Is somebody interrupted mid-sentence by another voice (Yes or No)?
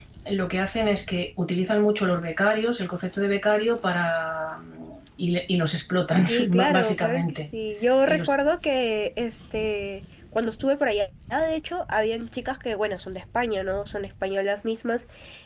Yes